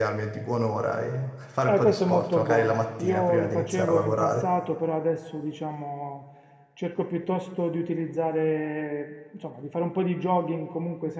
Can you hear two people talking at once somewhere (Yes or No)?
Yes